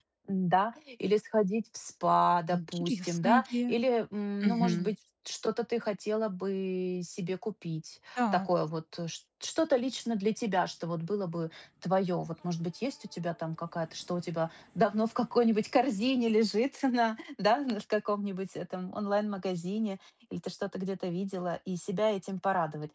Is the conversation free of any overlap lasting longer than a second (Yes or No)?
No